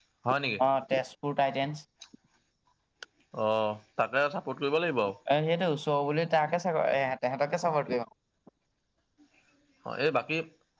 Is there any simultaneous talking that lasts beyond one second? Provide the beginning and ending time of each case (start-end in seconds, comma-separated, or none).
none